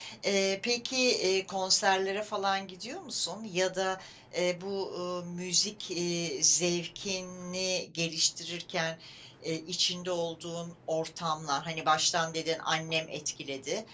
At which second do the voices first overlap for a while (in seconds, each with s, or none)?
none